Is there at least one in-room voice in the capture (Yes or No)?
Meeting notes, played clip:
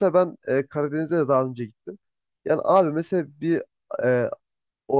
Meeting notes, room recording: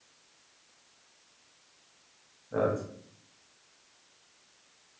Yes